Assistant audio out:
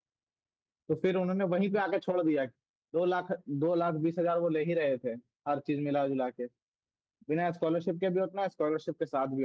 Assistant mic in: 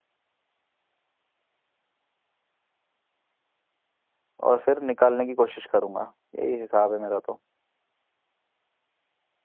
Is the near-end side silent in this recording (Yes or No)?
No